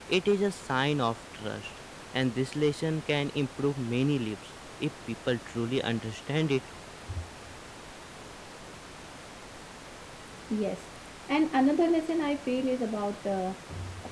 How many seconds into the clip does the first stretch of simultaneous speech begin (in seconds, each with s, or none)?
none